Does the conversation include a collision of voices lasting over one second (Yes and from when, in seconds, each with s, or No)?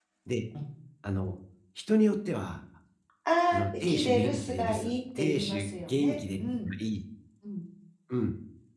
Yes, from 3.5 s